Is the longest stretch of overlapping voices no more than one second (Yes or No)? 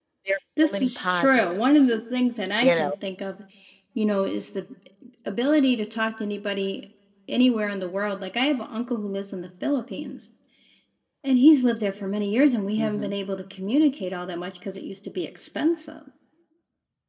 No